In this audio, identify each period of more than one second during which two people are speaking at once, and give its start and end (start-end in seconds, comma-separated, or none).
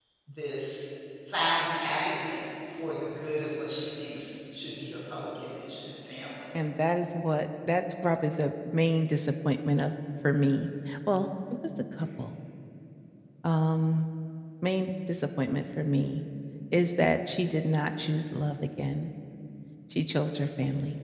none